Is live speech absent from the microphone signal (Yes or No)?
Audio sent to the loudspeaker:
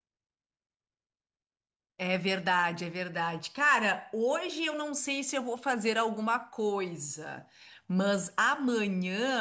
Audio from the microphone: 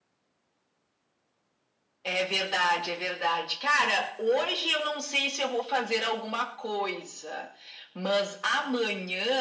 Yes